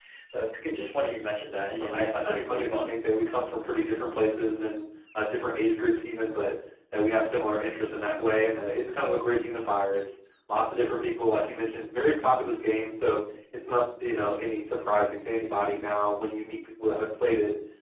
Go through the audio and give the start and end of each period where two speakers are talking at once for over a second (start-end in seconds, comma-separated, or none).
1.7-2.9